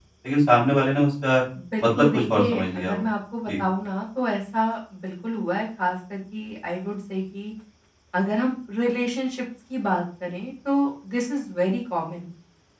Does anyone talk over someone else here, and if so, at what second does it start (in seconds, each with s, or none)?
1.8 s